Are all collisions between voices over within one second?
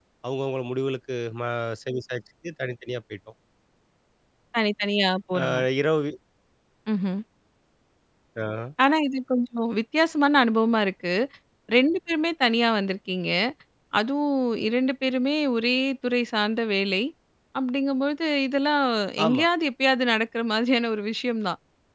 Yes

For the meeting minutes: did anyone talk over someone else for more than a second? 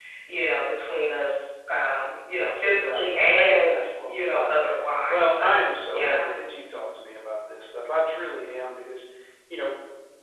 Yes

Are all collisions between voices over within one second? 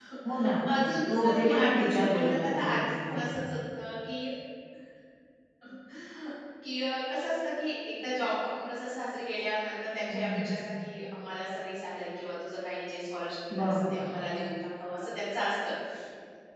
No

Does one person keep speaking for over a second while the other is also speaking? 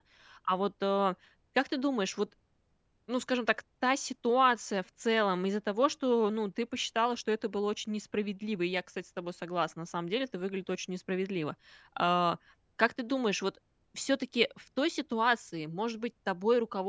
No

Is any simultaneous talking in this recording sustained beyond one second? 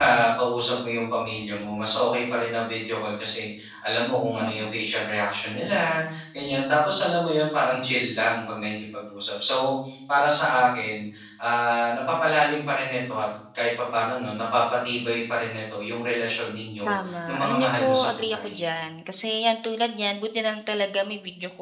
Yes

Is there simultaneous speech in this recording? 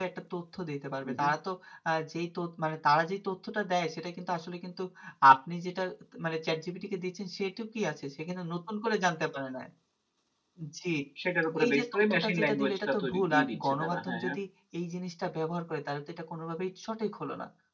Yes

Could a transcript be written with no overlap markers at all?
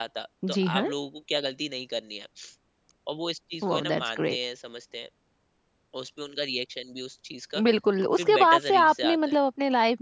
No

